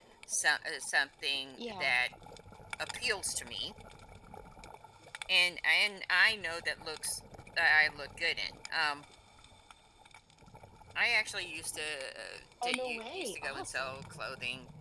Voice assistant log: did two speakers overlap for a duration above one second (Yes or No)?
Yes